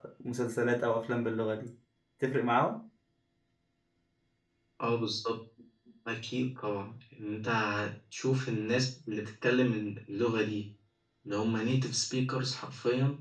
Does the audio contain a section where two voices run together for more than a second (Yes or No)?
No